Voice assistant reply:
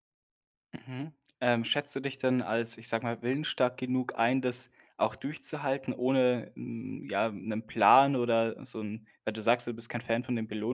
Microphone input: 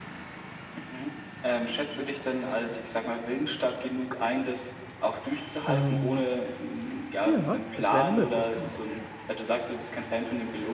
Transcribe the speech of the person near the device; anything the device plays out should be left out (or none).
Ähm, ja, das wäre 'ne Möglichkeit.